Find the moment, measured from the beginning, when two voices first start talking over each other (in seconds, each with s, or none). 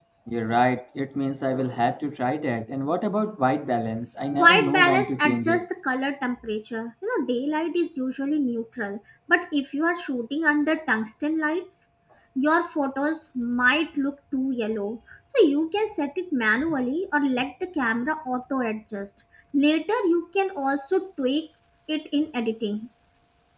4.3 s